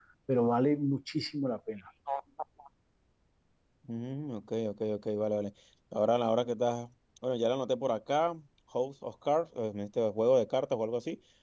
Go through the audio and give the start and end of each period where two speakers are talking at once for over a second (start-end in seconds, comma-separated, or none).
none